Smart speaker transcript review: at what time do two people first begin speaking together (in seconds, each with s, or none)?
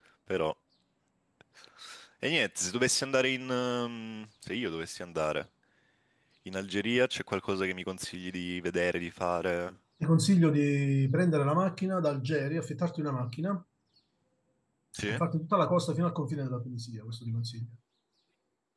none